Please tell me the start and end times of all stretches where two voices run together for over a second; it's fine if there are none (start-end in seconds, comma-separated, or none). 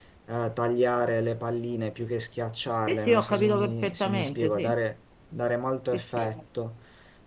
2.9-4.8